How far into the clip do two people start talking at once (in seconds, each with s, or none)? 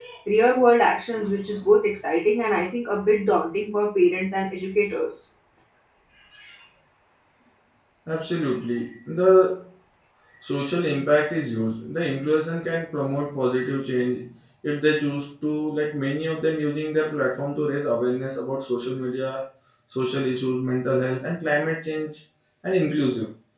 none